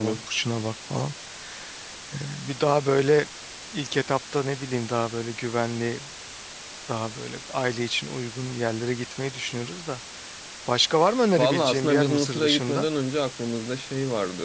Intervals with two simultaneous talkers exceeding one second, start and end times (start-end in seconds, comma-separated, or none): 11.4-12.9